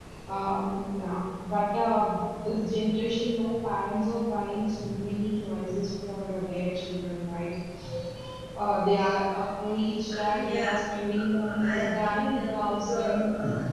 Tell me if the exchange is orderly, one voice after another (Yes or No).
No